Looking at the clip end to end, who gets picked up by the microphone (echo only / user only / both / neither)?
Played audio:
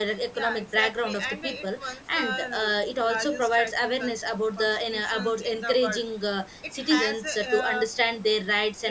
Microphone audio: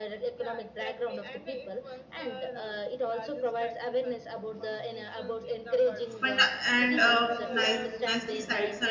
both